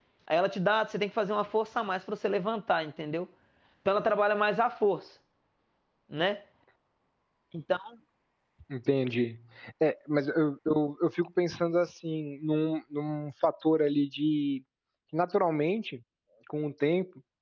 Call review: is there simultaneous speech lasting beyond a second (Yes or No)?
No